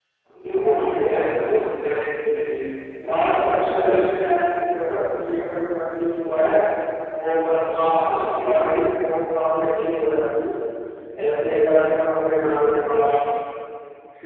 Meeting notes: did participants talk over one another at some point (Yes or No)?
Yes